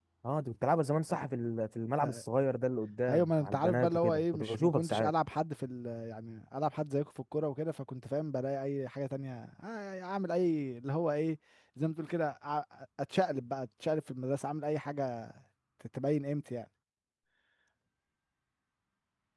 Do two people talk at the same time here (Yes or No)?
Yes